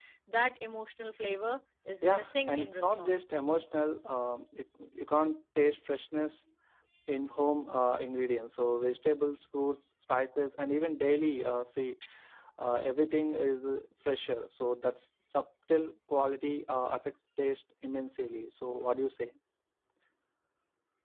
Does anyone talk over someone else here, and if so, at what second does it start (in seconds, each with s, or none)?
2.0 s